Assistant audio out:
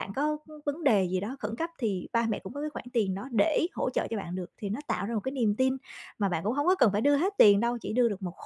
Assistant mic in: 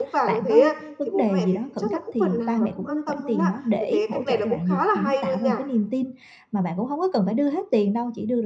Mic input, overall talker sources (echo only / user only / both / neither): both